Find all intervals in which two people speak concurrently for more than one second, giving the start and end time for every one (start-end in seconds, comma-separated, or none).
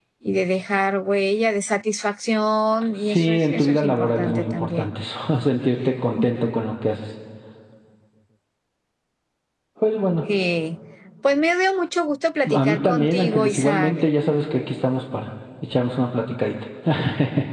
3.1-4.9, 12.5-13.9